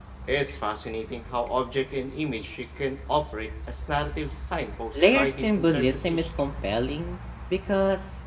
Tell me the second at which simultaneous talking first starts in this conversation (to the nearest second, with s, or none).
5 s